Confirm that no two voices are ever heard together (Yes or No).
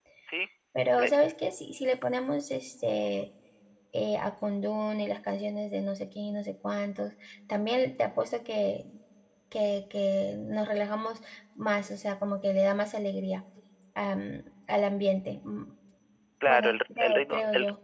No